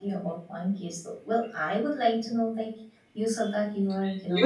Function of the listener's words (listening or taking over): taking over